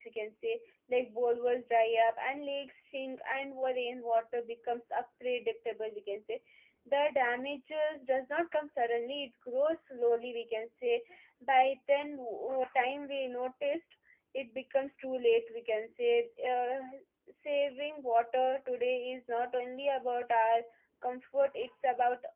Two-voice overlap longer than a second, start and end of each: none

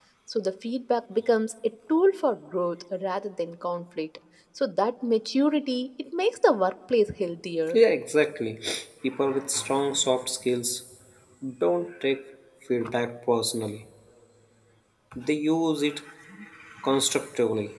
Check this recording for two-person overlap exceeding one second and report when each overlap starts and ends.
none

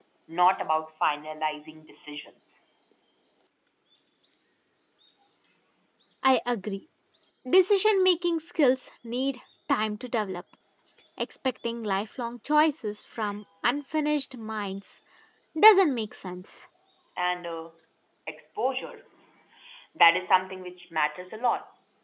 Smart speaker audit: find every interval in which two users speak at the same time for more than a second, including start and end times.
none

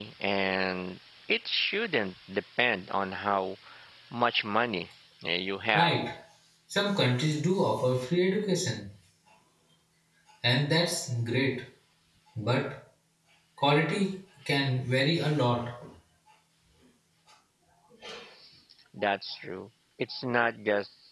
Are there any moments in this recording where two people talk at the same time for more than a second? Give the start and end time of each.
none

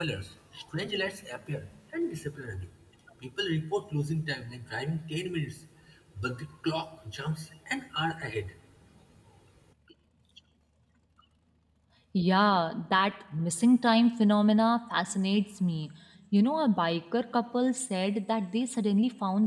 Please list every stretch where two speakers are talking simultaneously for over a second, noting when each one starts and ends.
none

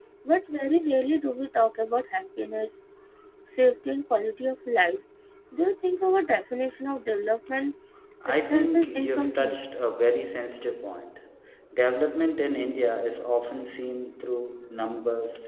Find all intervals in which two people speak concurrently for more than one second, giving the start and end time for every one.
8.3-9.6

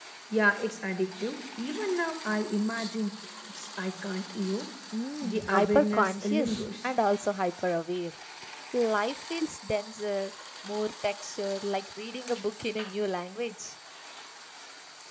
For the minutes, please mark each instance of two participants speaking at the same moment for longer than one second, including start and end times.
5.2-6.9

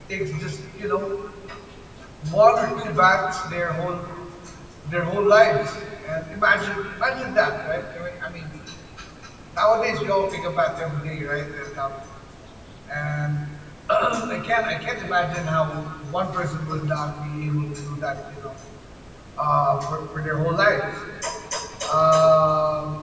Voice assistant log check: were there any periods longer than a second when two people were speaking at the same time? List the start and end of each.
none

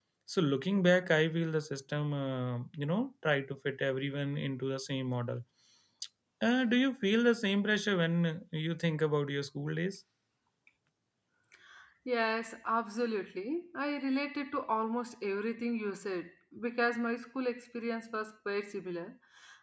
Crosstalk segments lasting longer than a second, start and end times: none

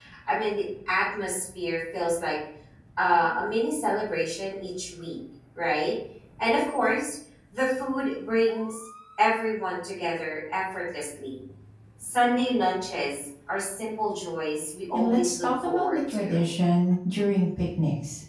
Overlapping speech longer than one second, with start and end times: 14.9-16.4

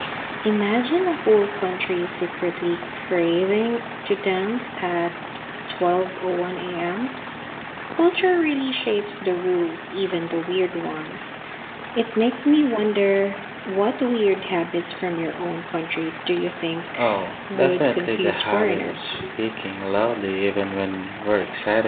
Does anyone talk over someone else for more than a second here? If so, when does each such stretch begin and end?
17.5-19.2

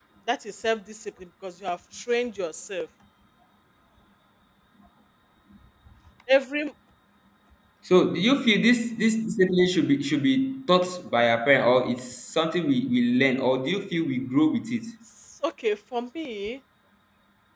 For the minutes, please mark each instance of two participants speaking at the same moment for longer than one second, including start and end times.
none

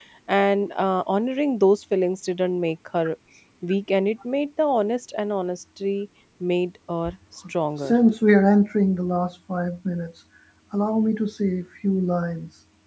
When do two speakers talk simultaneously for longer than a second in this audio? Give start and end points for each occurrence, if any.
none

